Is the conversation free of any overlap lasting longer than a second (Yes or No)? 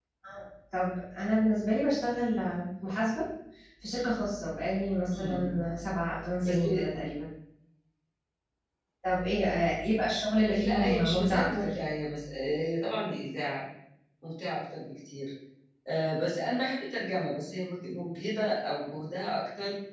No